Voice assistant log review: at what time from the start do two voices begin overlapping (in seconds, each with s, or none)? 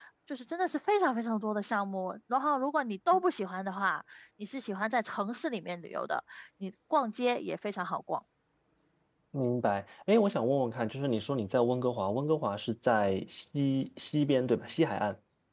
none